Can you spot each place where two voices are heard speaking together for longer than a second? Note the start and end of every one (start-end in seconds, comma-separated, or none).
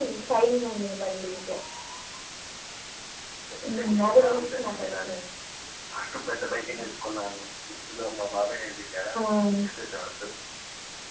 3.7-5.1